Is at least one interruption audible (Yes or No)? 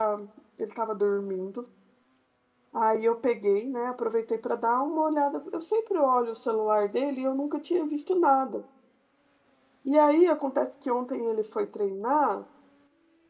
No